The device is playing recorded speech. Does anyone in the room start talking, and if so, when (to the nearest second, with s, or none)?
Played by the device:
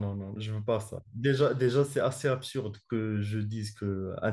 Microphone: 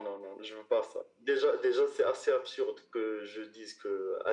none